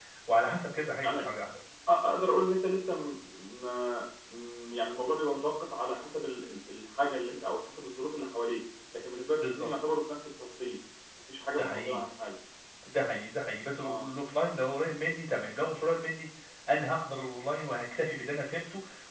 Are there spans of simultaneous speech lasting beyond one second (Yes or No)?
No